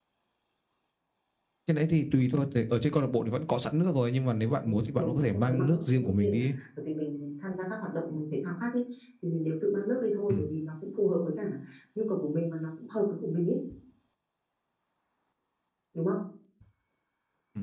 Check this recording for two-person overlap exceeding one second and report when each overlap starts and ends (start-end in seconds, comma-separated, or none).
4.6-6.4